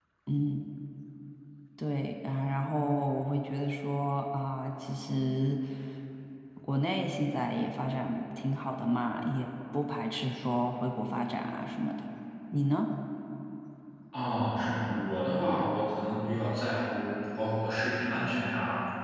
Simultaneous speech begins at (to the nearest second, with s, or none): none